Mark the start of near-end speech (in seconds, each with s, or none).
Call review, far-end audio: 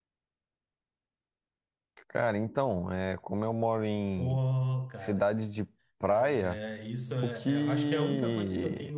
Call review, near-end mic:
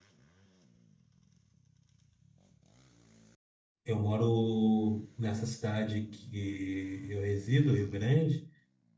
3.8 s